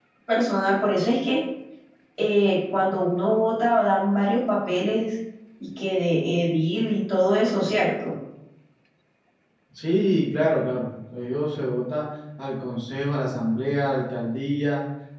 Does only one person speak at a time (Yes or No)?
Yes